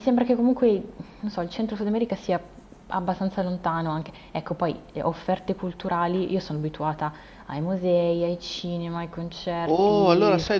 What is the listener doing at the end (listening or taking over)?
taking over